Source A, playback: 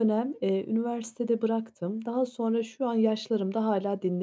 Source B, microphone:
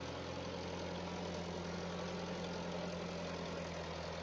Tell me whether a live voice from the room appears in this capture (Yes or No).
No